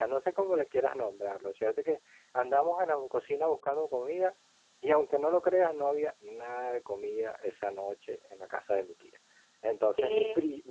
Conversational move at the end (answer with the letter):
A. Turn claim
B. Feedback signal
B